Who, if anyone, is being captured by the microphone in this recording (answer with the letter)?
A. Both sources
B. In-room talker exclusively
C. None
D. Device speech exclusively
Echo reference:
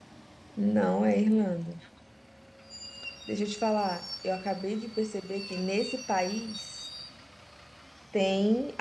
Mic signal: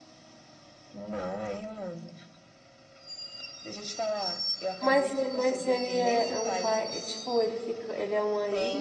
A